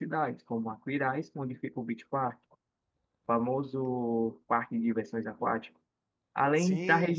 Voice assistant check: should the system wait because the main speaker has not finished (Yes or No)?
Yes